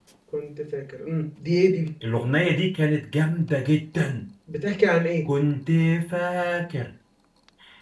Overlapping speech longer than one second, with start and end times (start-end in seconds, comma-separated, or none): none